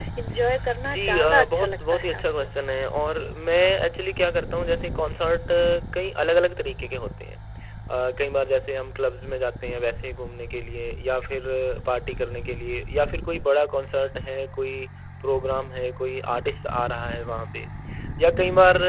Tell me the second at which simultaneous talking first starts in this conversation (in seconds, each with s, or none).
0.9 s